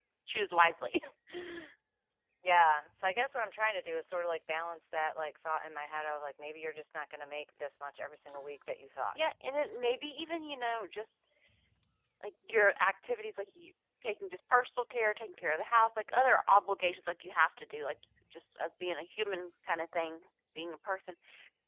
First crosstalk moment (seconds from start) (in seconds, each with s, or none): none